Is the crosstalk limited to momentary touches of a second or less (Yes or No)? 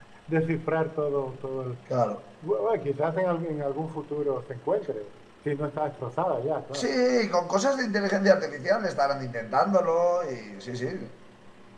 Yes